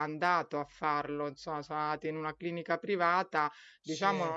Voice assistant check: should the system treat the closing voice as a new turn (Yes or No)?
No